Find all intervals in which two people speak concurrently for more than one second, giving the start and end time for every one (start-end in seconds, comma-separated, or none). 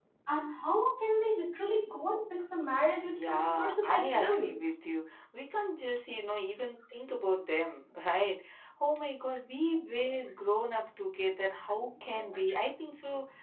3.2-4.6